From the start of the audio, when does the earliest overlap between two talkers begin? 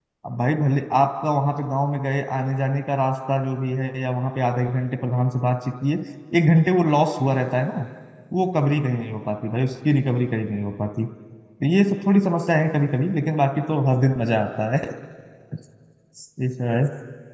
none

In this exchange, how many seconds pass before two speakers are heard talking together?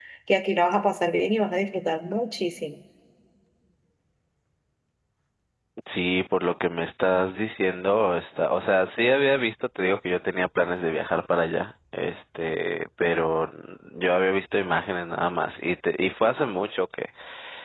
none

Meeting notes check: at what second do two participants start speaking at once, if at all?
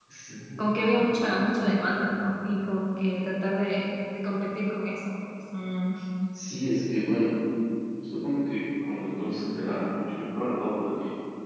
none

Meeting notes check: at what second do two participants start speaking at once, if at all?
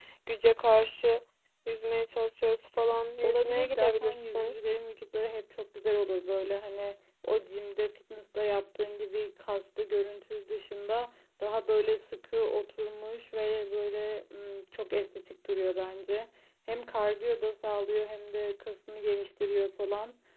3.2 s

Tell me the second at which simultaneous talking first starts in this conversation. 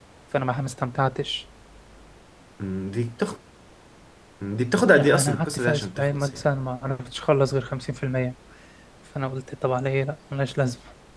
4.9 s

